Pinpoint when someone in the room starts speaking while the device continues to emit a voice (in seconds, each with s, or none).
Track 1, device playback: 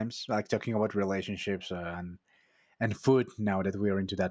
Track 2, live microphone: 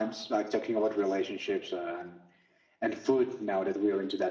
none